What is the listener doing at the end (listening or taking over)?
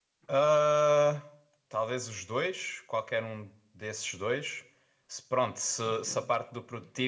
listening